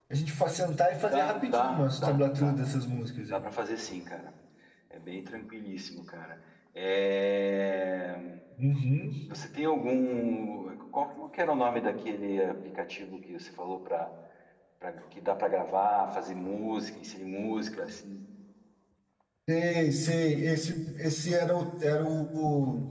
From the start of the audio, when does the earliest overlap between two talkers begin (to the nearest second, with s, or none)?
1 s